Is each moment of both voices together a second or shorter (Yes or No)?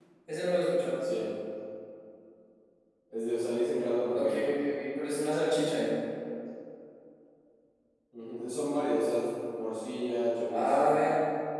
Yes